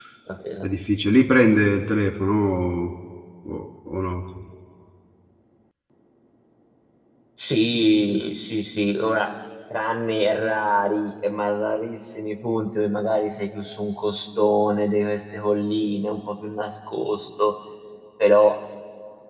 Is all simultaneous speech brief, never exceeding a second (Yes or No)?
Yes